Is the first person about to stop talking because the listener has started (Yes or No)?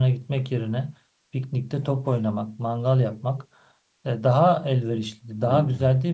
No